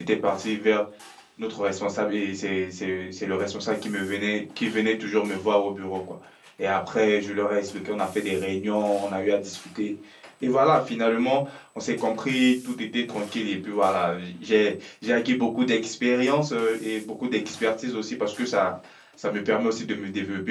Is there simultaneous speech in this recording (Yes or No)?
No